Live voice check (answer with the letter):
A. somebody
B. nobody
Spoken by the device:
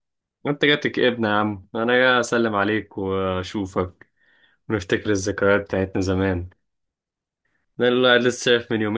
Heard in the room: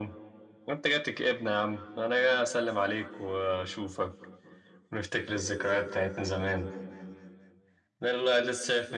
B